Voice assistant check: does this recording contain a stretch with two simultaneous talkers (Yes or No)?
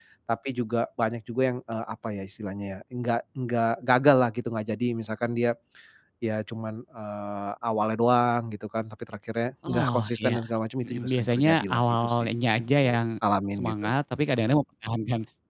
Yes